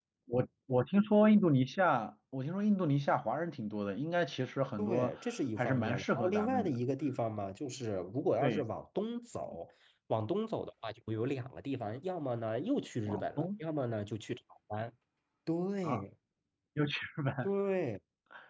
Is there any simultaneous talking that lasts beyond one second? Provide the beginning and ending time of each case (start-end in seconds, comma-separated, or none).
5.6-6.8